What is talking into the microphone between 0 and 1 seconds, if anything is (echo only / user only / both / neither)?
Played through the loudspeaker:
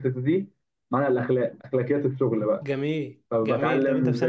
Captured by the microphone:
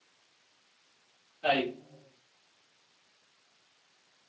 neither